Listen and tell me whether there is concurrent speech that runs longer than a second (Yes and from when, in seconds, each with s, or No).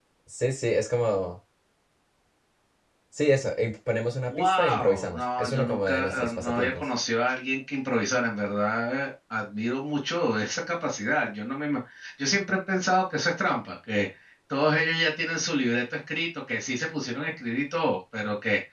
Yes, from 4.3 s